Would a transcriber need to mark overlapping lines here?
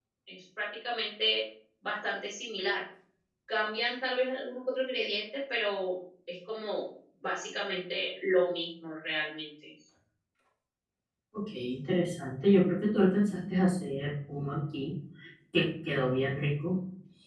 No

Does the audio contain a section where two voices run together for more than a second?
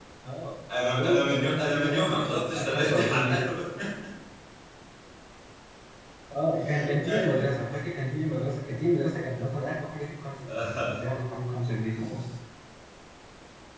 Yes, from 0.8 s

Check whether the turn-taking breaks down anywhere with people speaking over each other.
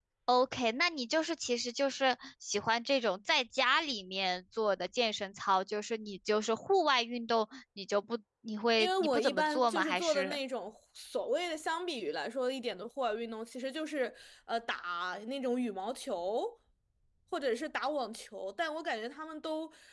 Yes, from 8.8 s

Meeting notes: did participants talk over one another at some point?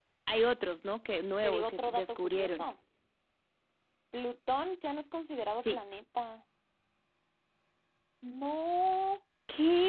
Yes, from 1.4 s

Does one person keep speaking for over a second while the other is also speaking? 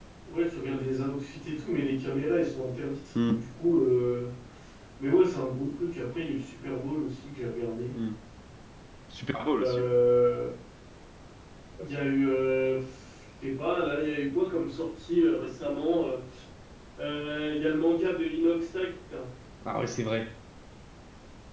No

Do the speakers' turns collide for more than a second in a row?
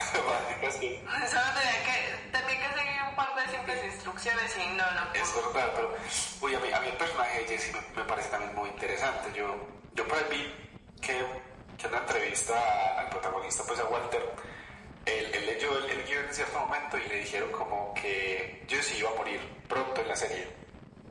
No

